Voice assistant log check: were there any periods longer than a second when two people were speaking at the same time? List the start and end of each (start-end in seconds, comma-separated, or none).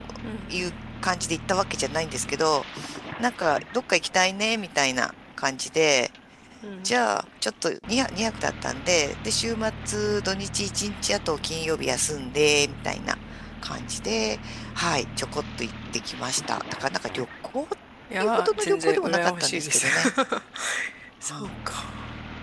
18.2-19.9